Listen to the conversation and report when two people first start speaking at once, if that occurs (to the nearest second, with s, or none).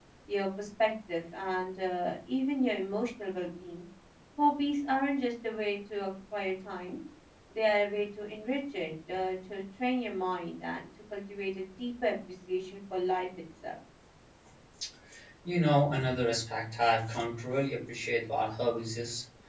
none